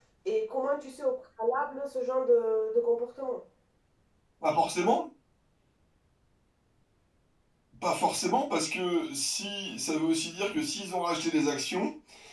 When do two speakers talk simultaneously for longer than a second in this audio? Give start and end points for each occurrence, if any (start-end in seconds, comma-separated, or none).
none